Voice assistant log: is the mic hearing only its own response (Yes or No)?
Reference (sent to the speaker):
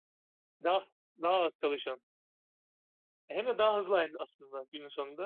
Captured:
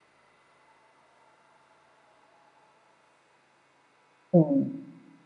No